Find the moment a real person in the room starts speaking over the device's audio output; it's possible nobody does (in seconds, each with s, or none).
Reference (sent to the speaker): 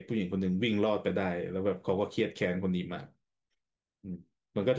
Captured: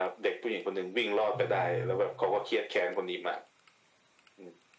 1.3 s